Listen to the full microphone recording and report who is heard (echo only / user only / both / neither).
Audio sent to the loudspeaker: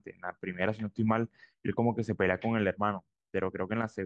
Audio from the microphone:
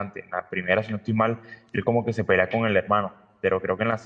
echo only